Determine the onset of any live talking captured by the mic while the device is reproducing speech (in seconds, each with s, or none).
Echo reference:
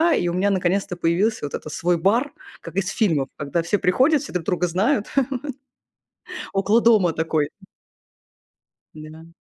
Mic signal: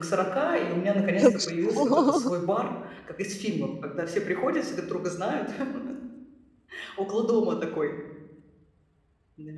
1.2 s